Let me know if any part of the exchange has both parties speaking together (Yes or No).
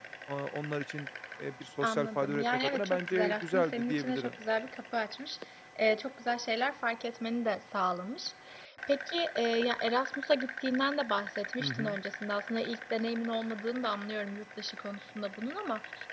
Yes